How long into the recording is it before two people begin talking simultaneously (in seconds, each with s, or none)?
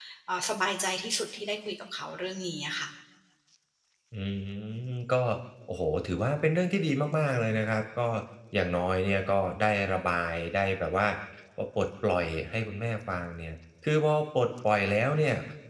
none